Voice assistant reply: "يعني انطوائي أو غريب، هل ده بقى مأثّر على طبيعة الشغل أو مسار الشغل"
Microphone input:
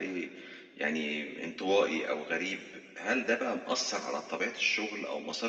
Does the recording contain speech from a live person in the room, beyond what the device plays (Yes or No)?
No